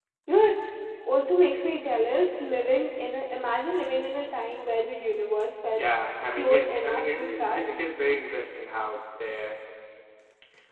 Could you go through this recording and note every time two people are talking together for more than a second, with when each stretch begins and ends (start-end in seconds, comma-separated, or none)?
6.3-7.8